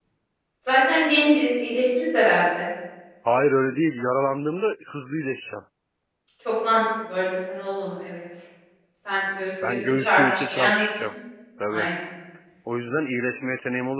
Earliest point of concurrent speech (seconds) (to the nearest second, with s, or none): 10 s